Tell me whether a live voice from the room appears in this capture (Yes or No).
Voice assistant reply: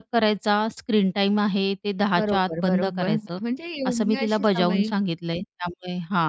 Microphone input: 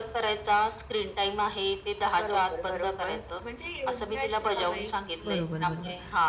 Yes